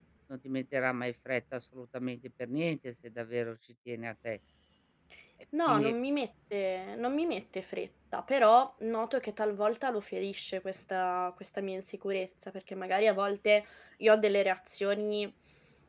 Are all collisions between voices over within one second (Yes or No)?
Yes